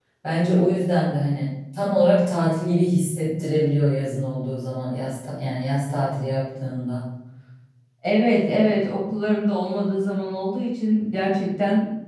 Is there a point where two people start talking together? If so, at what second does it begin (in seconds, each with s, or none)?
none